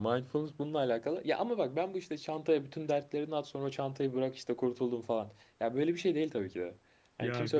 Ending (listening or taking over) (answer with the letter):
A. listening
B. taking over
B